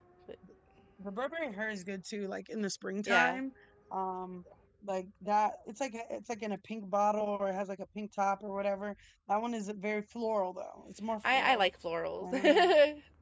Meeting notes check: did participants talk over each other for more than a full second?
No

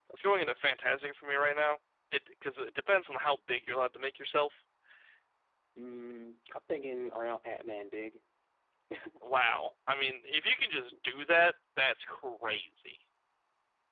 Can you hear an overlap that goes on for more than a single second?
No

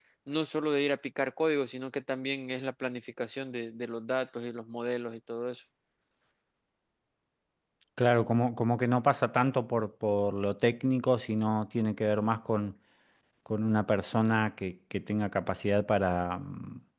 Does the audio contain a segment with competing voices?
No

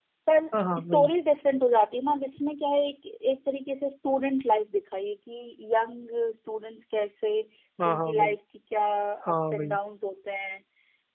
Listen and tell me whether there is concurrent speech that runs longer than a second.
No

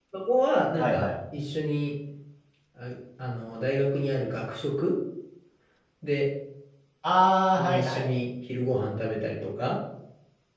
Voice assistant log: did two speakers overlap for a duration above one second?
No

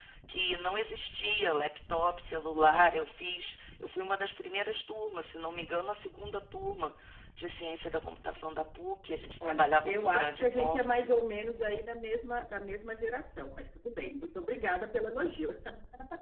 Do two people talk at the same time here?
Yes, from 9.4 s

